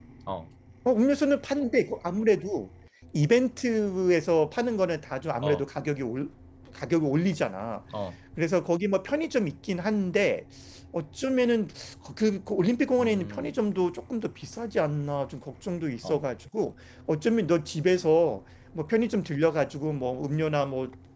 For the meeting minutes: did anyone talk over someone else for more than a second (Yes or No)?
No